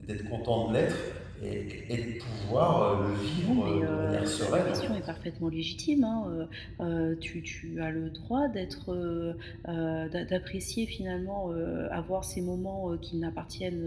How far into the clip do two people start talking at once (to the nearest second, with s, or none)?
3 s